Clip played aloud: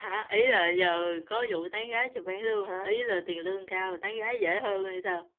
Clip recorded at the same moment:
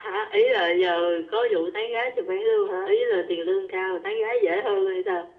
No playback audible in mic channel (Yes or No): No